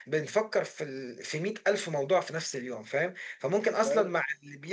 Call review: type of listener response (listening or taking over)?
listening